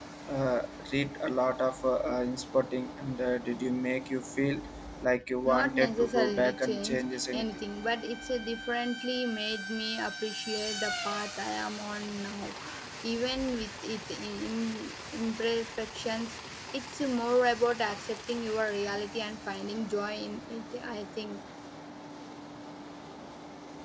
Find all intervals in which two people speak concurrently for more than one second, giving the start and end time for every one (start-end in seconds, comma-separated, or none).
5.4-7.7